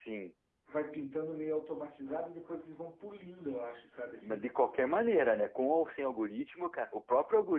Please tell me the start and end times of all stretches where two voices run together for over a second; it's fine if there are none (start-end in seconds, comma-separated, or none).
none